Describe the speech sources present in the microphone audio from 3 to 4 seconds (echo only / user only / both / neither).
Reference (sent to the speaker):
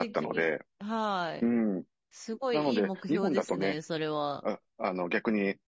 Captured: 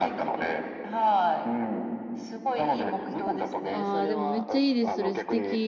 both